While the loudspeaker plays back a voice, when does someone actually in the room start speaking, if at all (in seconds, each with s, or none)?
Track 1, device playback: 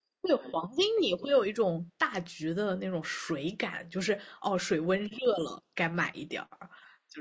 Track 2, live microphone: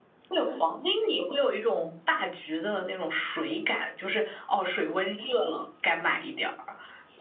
none